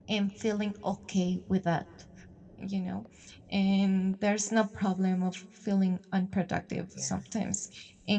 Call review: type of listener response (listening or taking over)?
listening